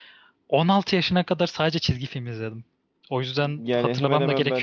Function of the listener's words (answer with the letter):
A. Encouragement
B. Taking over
B